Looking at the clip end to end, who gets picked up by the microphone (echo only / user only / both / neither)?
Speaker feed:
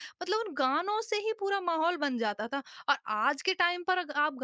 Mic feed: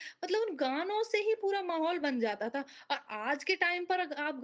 echo only